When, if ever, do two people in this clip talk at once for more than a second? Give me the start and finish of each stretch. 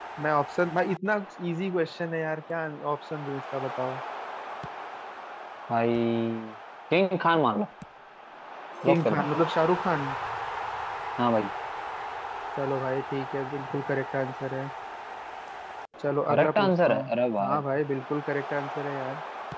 16.3-17.6

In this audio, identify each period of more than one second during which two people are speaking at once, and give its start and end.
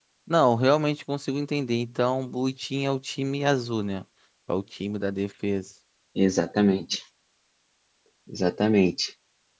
none

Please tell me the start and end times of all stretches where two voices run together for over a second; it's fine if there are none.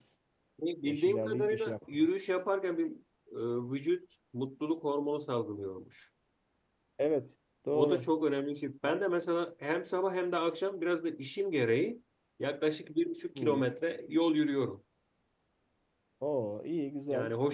0.8-2.1

